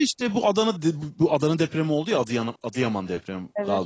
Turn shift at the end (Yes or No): No